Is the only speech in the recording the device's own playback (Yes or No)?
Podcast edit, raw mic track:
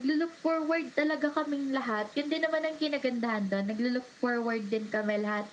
Yes